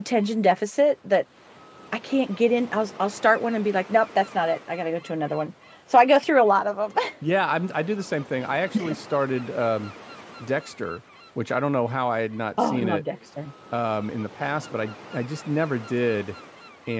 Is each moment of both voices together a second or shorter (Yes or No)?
Yes